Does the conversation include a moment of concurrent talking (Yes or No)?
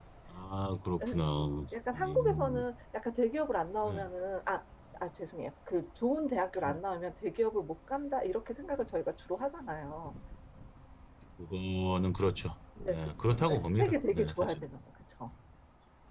Yes